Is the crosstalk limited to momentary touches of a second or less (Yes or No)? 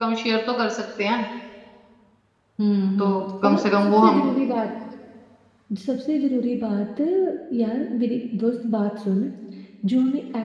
No